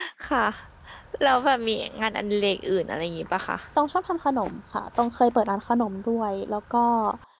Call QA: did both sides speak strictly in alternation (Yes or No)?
Yes